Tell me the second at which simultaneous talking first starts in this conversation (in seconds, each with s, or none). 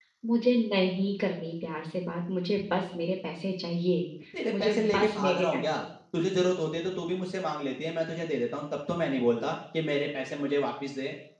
4.5 s